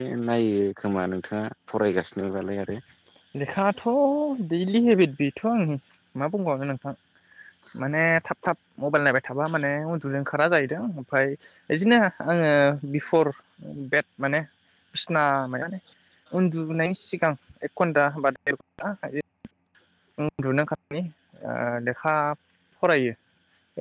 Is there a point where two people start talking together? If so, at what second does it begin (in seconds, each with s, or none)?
none